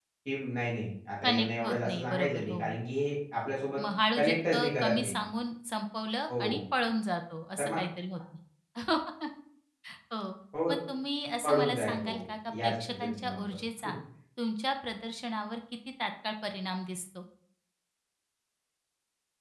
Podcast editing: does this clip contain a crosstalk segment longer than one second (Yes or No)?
Yes